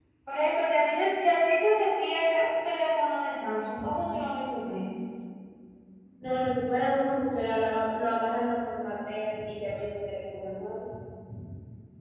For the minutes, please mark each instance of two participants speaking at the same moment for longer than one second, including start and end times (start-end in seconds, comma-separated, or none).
none